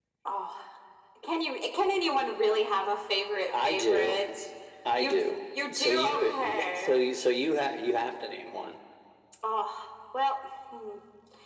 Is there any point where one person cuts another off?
Yes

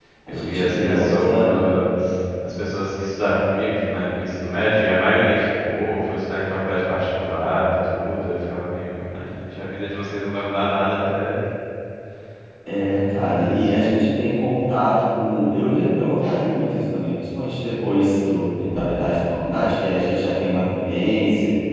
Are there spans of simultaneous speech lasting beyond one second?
Yes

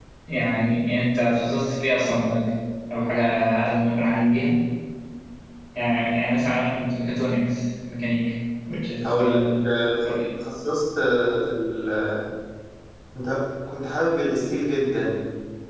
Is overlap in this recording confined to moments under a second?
Yes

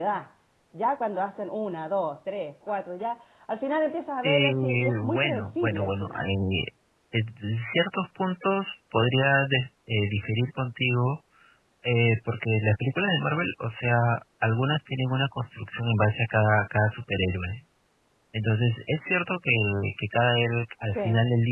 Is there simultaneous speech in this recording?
Yes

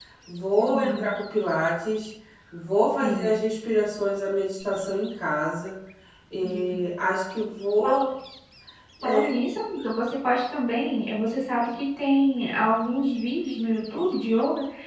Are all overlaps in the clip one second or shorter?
Yes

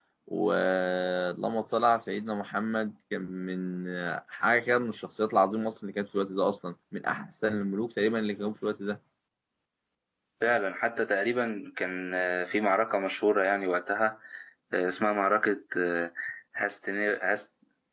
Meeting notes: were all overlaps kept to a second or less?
Yes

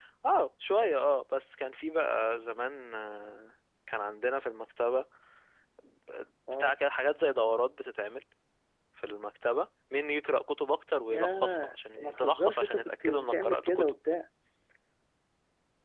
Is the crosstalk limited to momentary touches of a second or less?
No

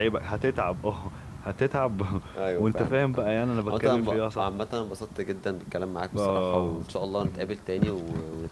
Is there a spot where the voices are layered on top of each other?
Yes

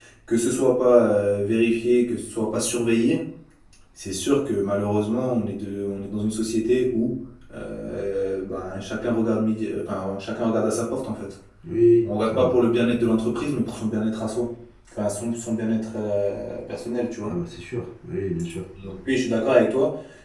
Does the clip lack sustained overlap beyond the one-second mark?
Yes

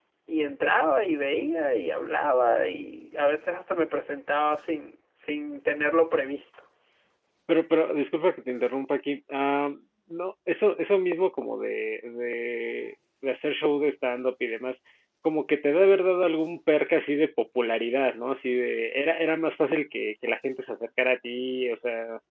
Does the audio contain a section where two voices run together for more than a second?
No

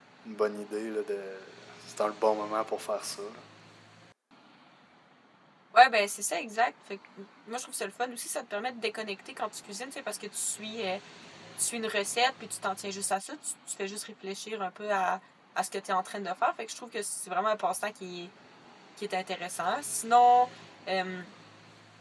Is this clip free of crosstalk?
Yes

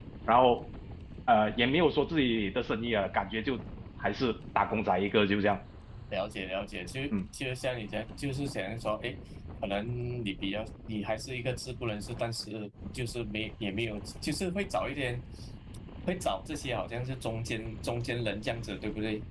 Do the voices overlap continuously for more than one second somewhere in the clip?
No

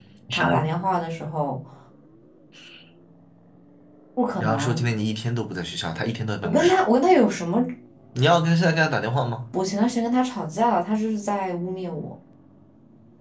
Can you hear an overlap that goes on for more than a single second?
No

